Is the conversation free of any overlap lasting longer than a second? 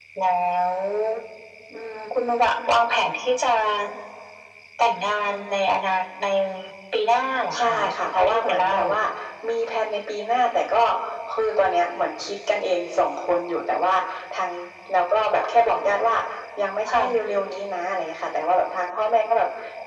No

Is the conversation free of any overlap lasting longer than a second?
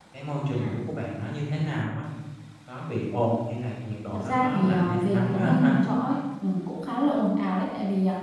No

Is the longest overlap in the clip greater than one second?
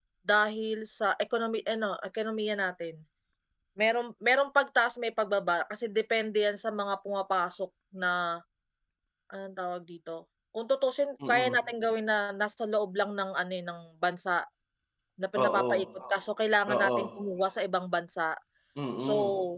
No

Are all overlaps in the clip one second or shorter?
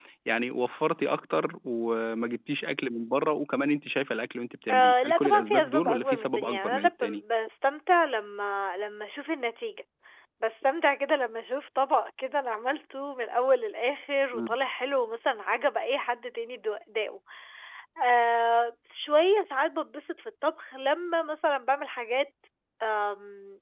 No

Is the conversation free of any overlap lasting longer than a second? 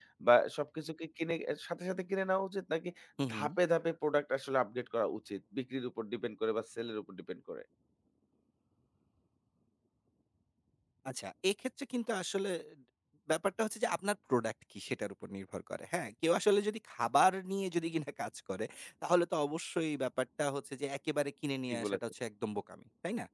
Yes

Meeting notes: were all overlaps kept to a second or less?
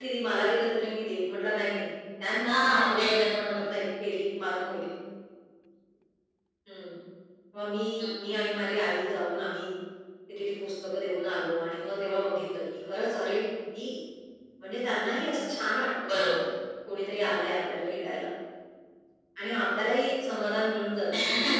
No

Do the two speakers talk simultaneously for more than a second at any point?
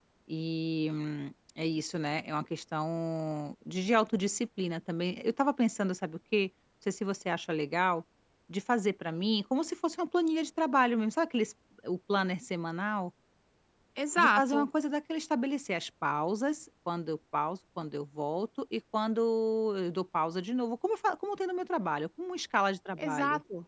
No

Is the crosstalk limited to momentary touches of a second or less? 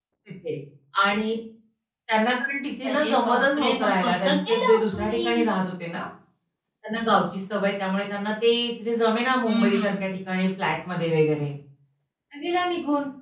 No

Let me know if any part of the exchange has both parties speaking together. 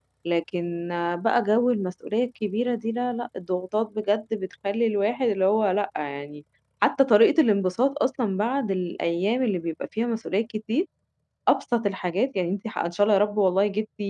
No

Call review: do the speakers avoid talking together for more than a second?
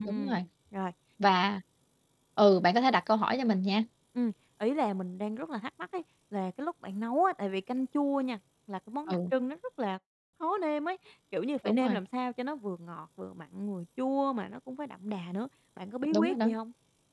Yes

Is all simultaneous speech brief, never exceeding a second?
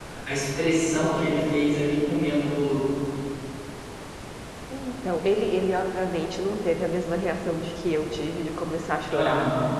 Yes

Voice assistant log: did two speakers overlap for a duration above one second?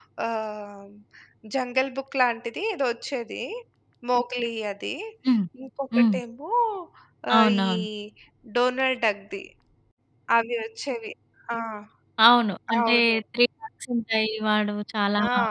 No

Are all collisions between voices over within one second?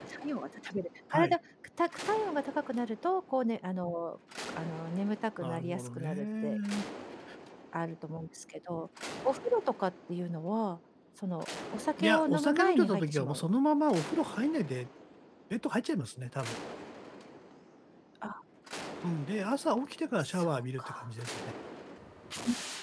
No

